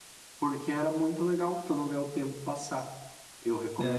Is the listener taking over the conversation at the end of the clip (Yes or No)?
Yes